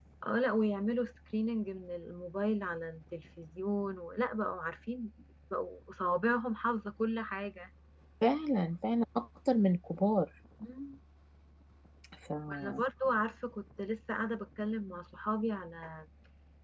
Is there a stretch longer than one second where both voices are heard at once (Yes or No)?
No